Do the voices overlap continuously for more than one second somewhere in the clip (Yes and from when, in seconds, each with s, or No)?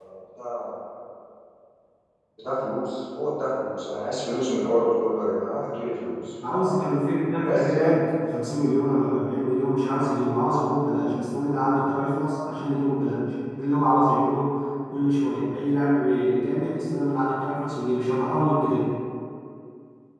No